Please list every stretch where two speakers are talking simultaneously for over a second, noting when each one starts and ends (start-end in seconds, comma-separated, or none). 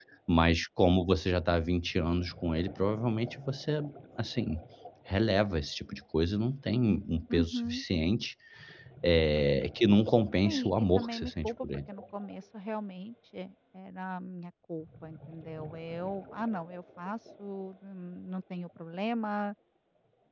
10.4-11.7